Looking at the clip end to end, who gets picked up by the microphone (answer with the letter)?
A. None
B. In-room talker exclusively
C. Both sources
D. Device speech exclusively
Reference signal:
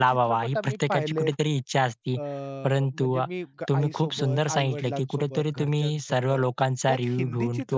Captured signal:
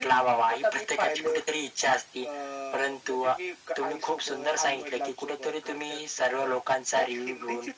D